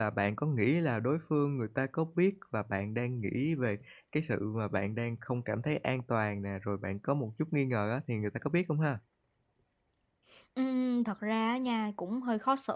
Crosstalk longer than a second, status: none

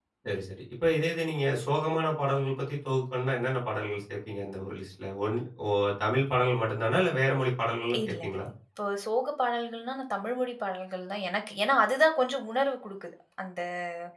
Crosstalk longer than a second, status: none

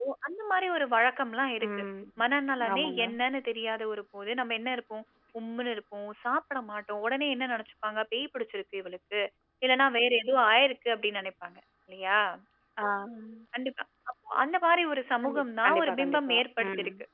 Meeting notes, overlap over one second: present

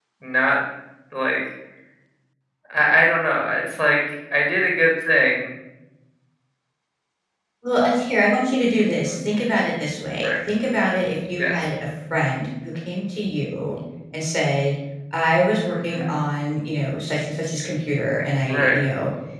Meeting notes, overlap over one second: none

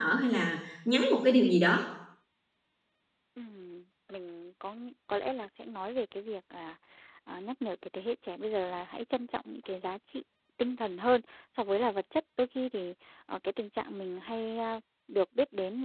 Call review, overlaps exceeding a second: none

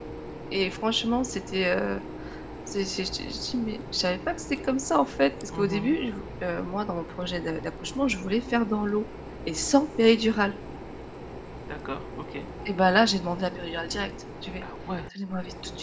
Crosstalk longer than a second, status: none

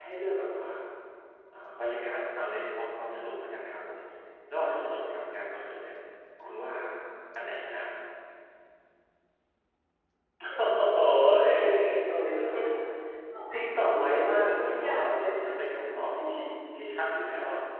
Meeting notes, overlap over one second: present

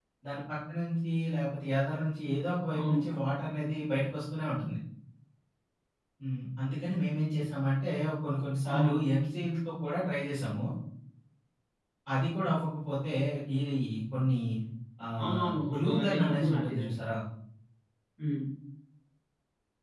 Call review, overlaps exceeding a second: present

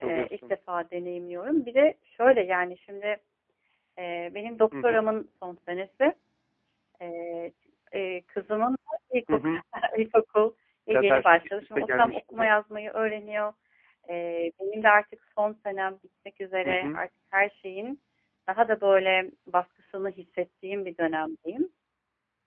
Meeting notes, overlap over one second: present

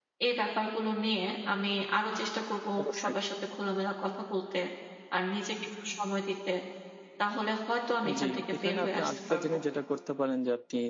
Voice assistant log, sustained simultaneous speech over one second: present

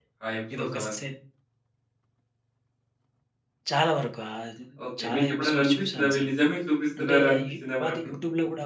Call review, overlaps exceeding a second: present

